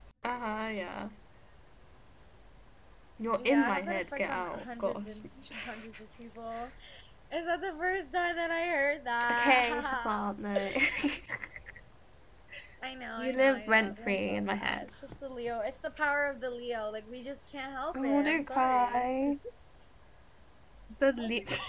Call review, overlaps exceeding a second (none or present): present